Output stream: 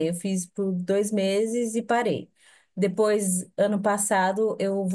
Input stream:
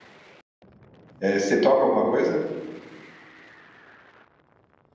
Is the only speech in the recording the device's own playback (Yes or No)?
No